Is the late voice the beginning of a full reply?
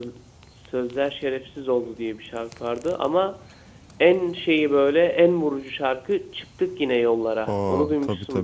Yes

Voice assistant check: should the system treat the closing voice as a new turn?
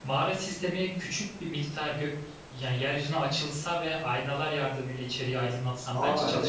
Yes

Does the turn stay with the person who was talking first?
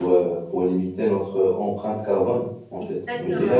Yes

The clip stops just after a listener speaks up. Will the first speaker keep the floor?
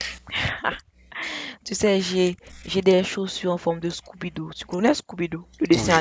No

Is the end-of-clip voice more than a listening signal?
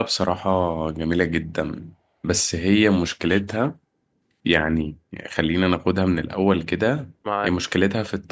No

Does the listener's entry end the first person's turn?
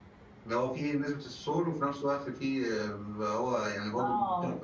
Yes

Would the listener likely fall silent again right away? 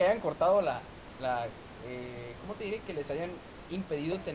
Yes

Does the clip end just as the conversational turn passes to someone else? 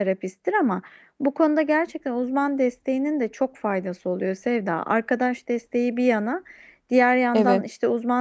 No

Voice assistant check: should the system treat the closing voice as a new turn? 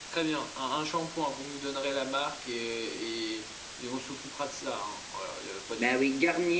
Yes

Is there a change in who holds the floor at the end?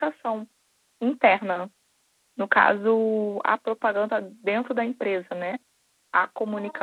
No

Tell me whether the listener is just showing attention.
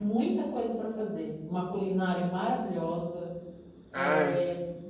Yes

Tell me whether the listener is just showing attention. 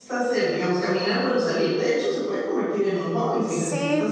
No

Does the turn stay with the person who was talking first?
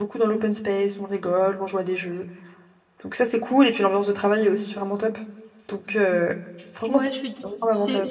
No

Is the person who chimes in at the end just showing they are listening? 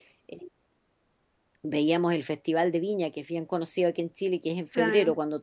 Yes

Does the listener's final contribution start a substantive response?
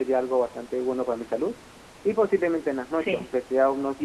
No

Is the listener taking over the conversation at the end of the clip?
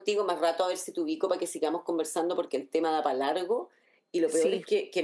No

